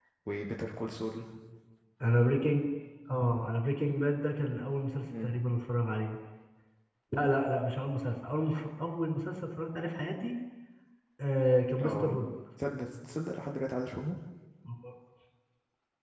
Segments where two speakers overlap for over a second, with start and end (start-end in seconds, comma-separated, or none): none